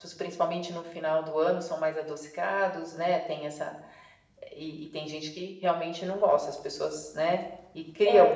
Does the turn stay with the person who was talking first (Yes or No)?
No